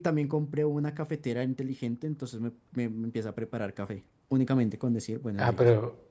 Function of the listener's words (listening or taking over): taking over